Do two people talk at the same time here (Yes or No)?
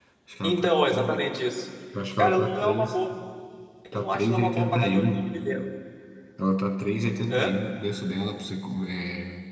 Yes